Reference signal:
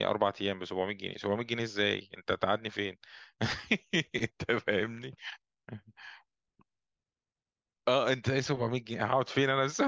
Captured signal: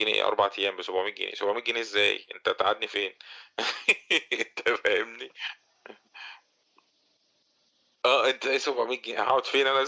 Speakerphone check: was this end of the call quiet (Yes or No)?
Yes